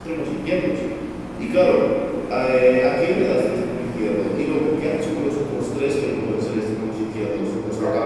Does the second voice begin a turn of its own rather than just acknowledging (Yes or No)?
No